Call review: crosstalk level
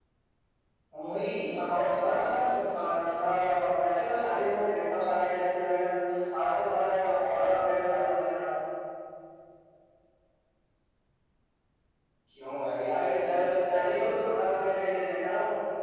present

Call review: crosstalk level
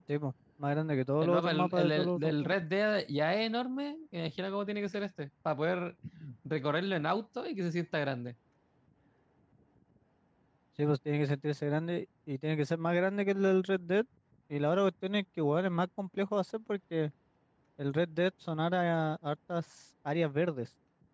present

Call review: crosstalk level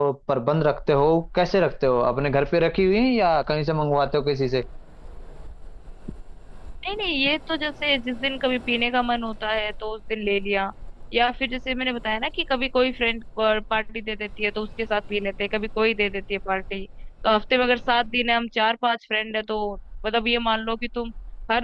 none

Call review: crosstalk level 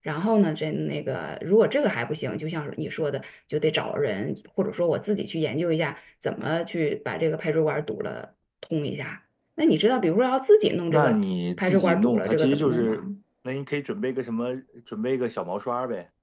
present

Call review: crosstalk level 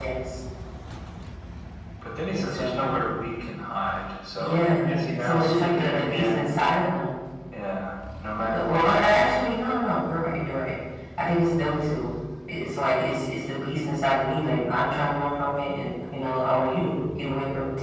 present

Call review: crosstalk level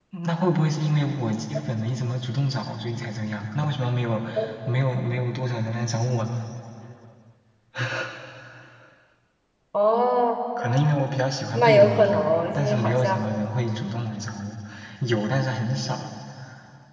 present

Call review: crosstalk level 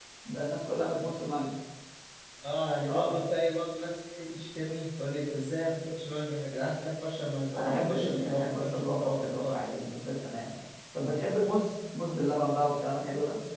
present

